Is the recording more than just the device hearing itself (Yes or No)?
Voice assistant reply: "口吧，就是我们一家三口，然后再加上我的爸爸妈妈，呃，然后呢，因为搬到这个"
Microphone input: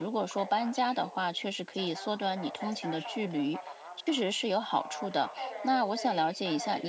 Yes